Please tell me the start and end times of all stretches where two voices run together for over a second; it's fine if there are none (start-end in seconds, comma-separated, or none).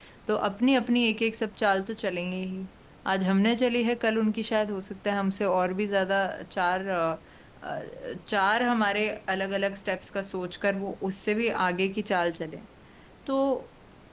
none